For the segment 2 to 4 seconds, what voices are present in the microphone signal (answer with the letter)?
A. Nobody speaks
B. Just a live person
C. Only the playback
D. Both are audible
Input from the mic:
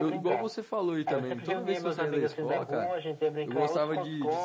D